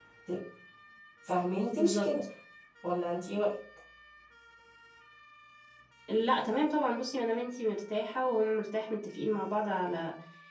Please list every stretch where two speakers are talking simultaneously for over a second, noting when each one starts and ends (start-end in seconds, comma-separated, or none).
none